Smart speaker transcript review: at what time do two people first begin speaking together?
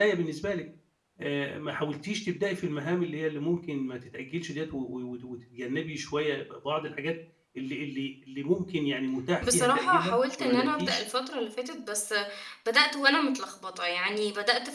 9.4 s

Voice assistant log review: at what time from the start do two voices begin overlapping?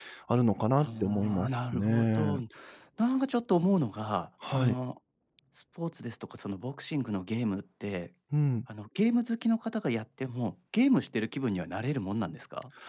0.8 s

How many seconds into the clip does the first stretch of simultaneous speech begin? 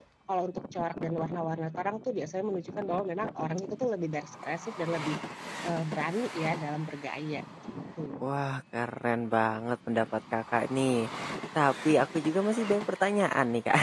none

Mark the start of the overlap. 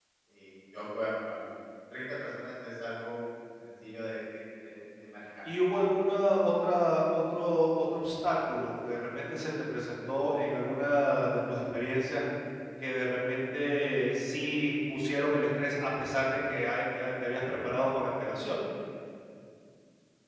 none

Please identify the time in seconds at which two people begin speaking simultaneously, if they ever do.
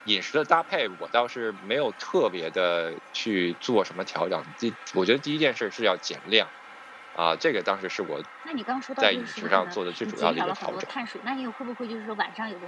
9.0 s

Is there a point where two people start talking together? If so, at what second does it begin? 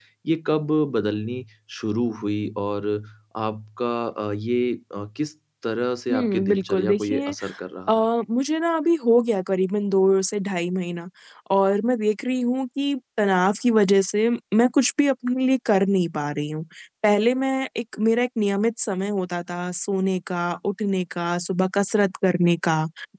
6.1 s

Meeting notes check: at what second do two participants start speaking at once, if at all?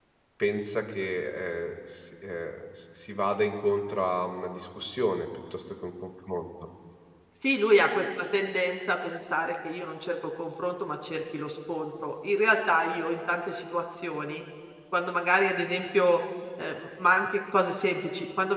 none

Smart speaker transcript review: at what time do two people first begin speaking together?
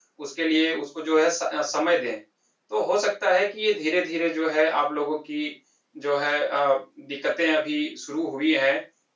none

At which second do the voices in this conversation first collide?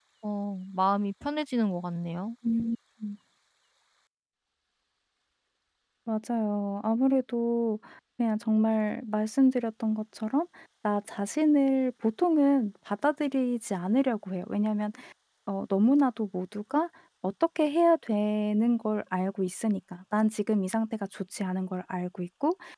none

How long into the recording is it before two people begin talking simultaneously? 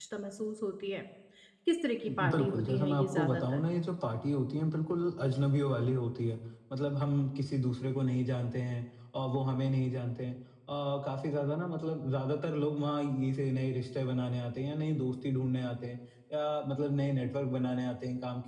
2.1 s

